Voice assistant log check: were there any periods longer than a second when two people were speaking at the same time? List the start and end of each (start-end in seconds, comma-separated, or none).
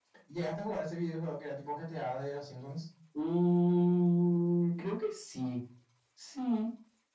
none